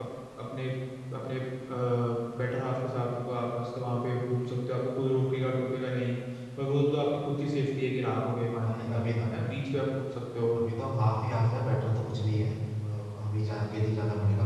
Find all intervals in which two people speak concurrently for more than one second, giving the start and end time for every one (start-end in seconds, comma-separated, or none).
none